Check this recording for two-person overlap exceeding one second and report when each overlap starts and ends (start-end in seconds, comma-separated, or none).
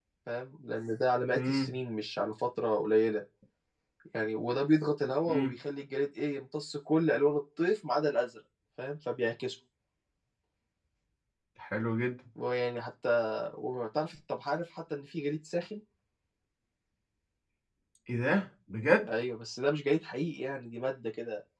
none